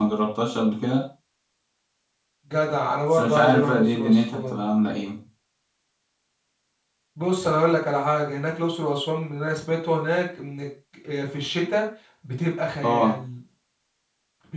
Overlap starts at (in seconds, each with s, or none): 3.1 s